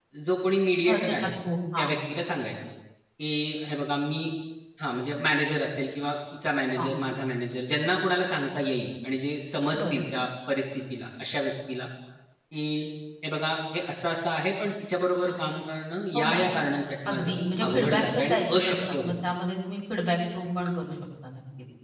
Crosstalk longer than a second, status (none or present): present